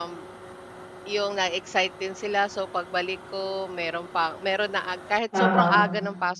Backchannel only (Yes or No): Yes